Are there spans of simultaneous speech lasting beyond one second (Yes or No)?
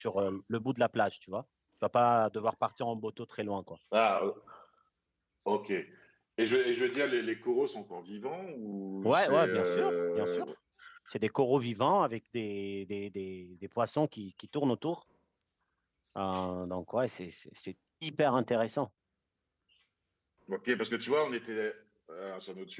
Yes